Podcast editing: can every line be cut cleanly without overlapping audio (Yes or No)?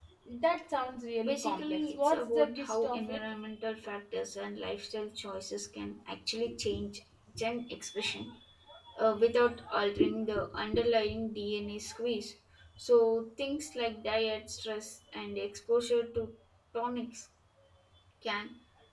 No